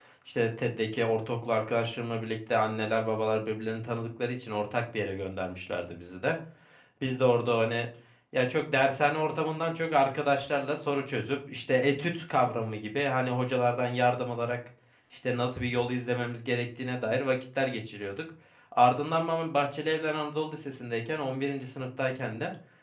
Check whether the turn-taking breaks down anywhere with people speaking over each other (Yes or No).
No